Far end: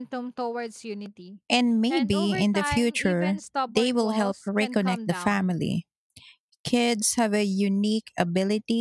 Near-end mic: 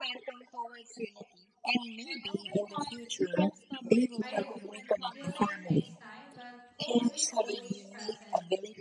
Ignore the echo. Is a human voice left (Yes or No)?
Yes